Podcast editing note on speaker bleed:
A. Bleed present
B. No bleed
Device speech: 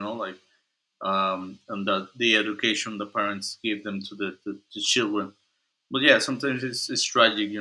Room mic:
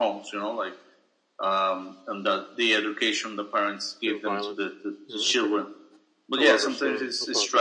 A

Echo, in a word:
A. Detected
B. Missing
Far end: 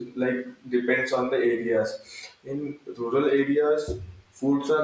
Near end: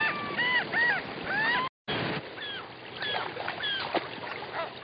B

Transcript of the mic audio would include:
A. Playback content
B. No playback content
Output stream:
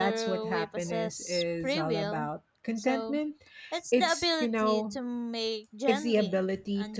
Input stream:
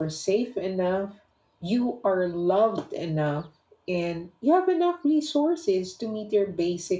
B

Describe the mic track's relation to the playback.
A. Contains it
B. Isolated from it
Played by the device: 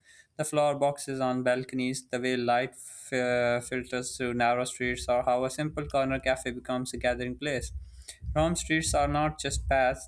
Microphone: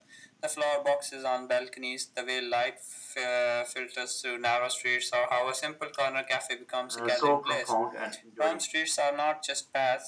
A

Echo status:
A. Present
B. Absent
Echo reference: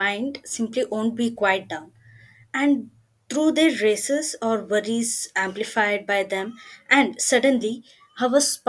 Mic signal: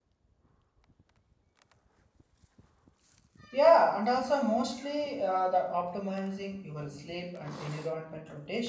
B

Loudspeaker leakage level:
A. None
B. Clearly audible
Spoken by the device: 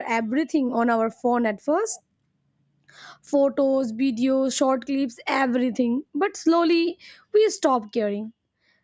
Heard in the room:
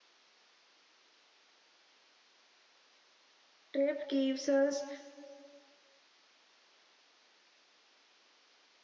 A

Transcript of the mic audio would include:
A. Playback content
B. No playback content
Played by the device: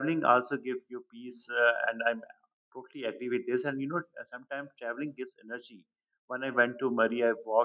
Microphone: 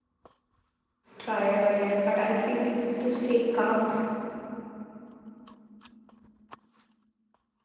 B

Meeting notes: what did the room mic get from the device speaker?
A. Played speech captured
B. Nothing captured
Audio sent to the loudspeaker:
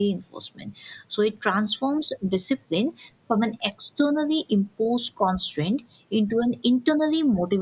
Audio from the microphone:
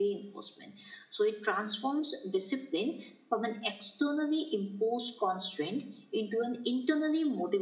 A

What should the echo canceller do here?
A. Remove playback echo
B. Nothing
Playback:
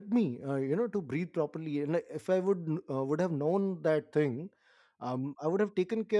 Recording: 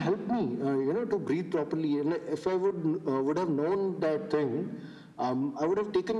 A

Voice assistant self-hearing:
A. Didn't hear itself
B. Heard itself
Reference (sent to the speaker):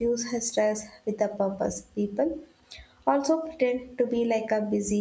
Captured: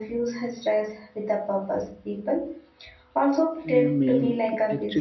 B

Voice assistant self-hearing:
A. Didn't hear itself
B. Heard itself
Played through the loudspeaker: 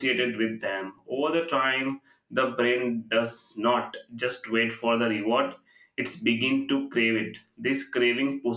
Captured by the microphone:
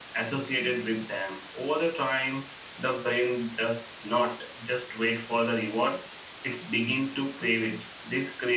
B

